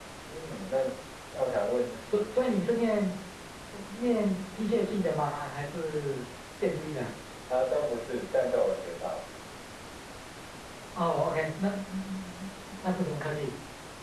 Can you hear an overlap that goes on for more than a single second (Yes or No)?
No